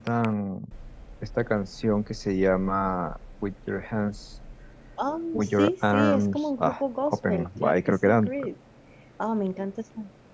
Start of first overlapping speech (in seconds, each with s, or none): 5.3 s